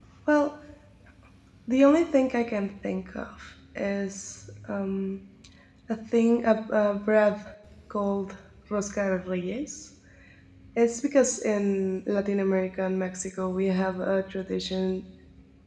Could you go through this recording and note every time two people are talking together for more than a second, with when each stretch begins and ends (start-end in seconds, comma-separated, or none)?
none